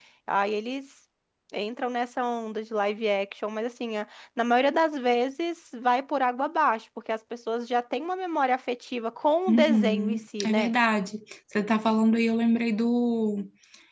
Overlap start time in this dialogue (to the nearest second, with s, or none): 9 s